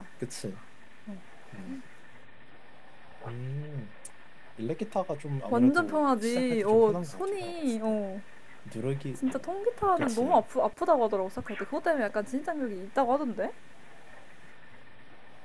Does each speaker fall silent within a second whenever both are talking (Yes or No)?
No